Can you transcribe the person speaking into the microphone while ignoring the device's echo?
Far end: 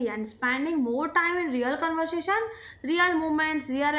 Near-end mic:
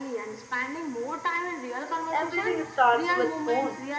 Everything starts with phone.

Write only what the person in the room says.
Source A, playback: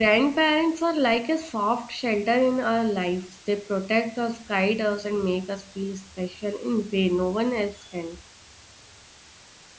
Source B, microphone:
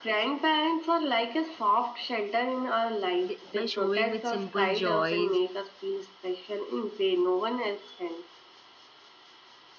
th- by showing with simple joys

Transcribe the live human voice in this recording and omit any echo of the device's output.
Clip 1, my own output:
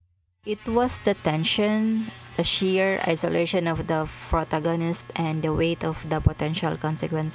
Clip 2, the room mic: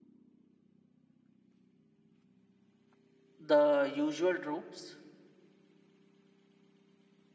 the usual tropes?

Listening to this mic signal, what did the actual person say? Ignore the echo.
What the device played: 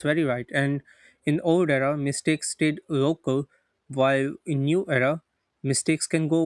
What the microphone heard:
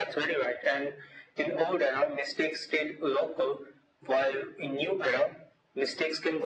none

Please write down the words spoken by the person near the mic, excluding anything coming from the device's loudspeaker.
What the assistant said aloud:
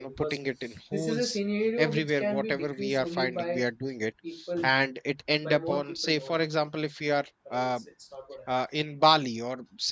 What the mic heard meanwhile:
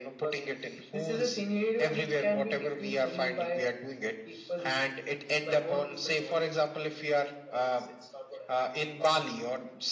none

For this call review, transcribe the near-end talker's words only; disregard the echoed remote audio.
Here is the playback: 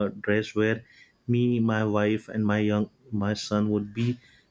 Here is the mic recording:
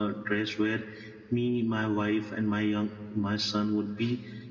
none

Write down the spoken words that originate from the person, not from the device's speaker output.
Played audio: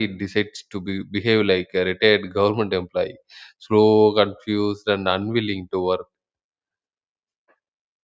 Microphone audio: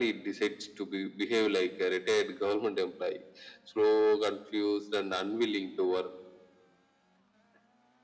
none

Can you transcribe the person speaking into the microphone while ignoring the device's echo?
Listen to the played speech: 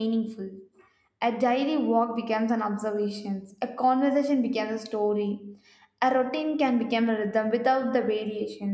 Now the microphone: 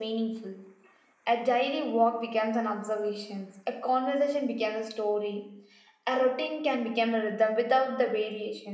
none

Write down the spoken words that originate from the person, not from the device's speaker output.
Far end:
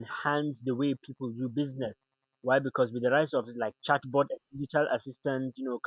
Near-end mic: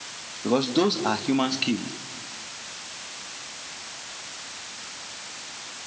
because those are human skills,

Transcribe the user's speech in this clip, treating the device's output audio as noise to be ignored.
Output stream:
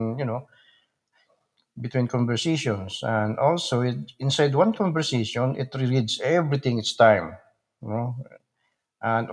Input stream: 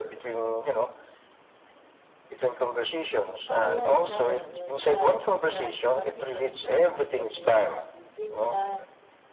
Oh yeah, try it. Uh, Yeah, it looks like what people usually mean when they ask something similar,

